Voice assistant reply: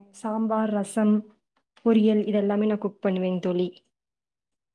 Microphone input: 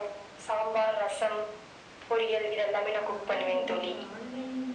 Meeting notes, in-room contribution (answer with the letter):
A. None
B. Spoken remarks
B